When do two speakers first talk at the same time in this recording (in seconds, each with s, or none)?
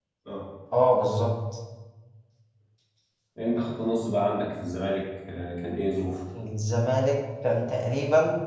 none